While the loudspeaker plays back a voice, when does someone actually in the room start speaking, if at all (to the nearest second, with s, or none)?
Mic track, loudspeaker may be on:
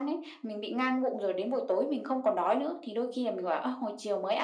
none